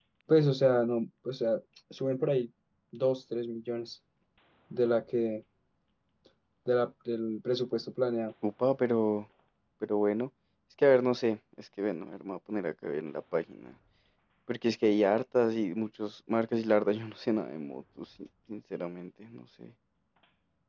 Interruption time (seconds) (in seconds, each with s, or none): none